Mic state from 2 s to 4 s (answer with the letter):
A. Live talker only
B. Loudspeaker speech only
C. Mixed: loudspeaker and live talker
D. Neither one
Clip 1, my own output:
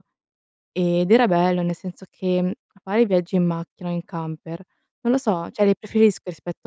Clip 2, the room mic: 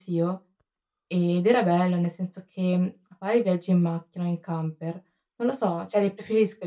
B